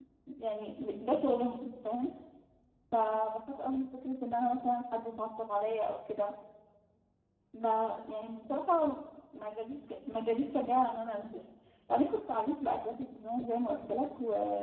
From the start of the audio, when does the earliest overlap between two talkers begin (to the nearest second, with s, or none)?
none